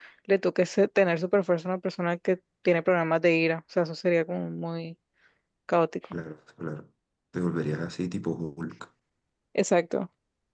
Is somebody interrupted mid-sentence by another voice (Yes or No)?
No